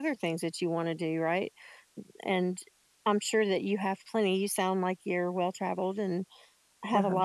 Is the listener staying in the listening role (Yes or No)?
Yes